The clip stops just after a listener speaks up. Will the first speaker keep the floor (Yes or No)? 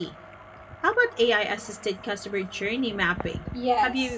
No